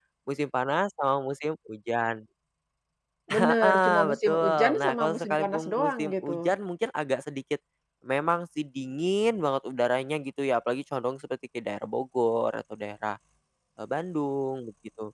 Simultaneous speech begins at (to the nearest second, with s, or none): 3 s